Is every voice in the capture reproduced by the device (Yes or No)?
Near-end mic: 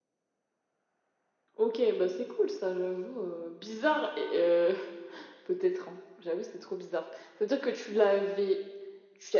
Yes